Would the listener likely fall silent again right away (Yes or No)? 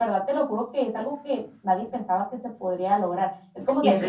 Yes